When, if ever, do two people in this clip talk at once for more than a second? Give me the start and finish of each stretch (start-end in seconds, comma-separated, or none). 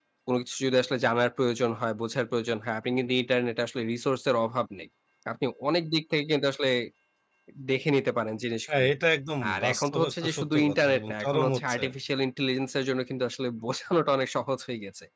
9.5-11.8